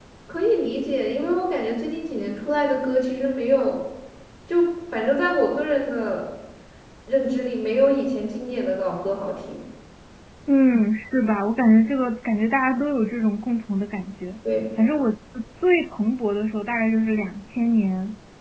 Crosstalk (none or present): none